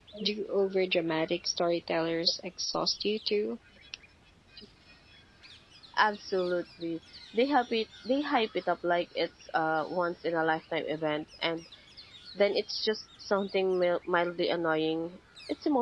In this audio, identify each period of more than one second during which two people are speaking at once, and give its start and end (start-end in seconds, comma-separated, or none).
none